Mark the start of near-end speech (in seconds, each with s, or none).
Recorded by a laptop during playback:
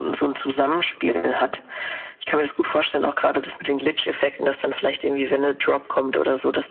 none